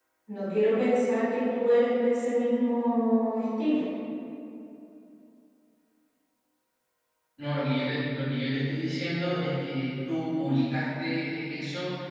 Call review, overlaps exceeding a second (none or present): none